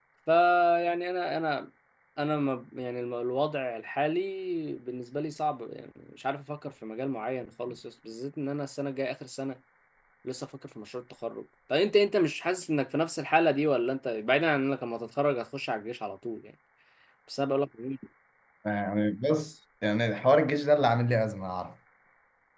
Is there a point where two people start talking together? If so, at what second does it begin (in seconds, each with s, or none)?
none